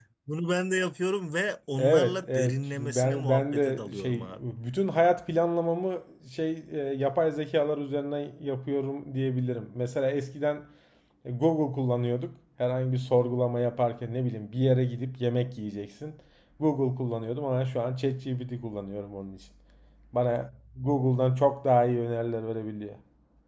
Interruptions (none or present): present